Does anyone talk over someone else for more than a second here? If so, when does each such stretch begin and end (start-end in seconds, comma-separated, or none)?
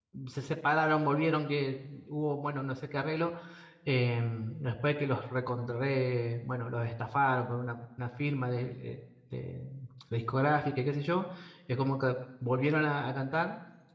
none